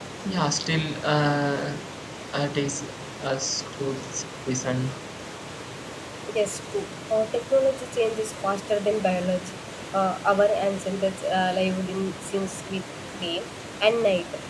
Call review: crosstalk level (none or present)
none